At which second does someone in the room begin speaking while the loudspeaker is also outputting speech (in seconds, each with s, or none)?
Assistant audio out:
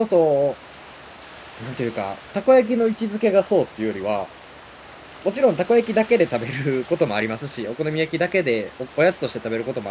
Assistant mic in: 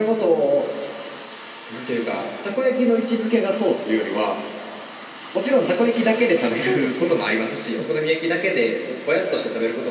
6.6 s